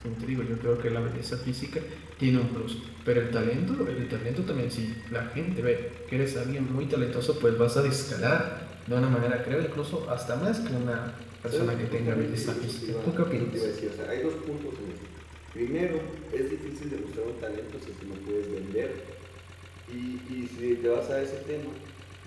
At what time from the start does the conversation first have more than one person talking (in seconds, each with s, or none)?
11.5 s